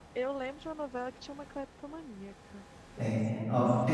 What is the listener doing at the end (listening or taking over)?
taking over